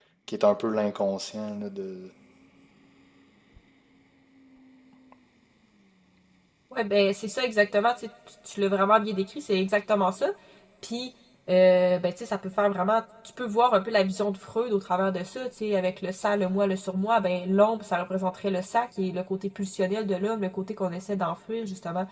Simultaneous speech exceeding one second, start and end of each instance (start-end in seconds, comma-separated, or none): none